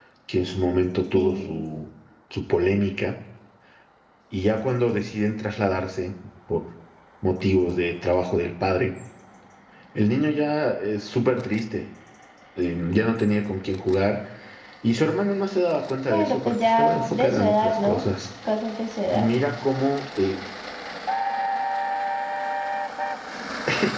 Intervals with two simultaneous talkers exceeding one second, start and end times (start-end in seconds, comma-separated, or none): 16.1-18.0